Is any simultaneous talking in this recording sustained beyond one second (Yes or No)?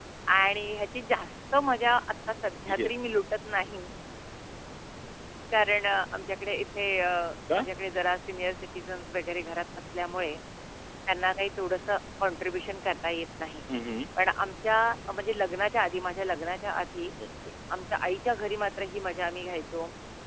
No